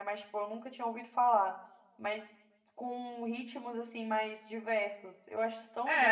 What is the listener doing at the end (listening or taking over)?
taking over